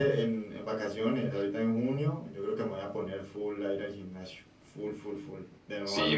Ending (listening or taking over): taking over